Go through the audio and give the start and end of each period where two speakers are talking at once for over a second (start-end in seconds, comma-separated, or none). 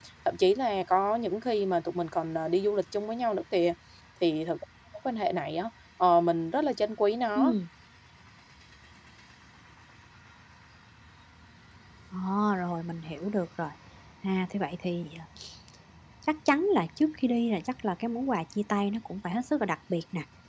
none